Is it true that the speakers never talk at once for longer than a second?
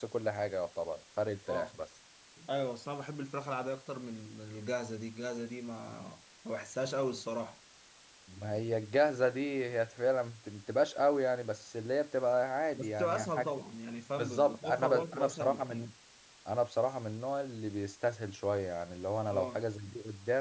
No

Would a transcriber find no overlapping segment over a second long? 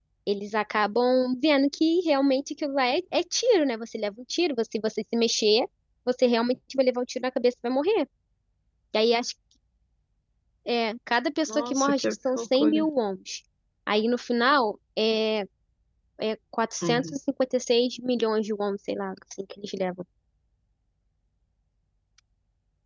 No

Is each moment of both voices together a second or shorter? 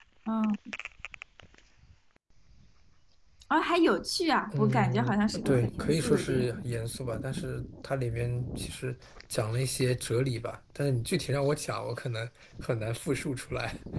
No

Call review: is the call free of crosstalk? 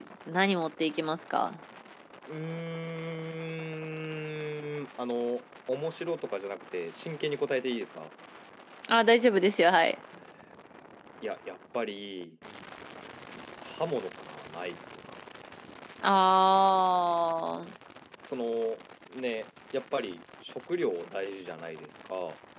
Yes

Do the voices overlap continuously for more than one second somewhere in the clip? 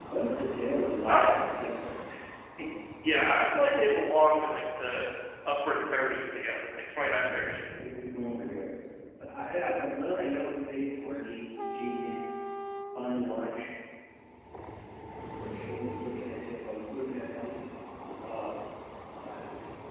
No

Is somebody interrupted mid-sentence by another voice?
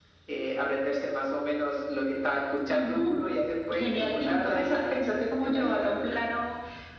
Yes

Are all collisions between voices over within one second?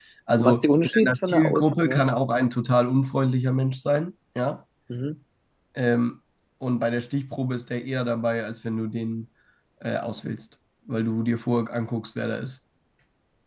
No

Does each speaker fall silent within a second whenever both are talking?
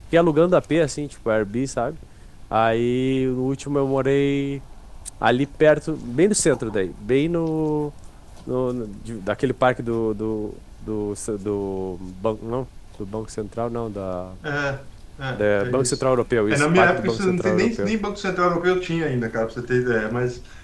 No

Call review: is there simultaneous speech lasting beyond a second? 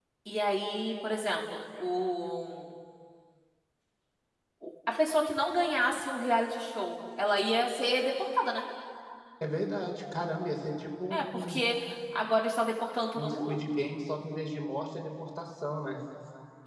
No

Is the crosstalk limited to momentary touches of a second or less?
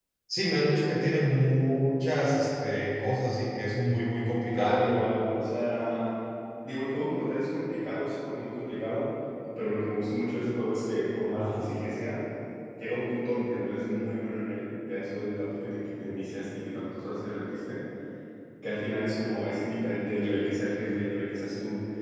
Yes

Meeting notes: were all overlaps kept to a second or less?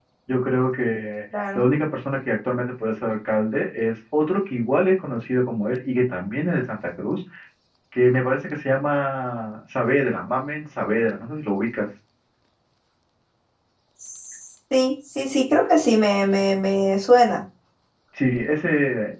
Yes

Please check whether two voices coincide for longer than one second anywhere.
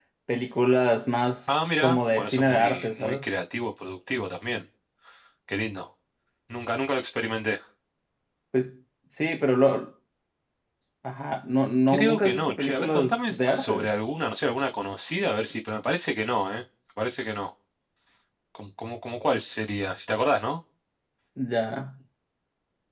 Yes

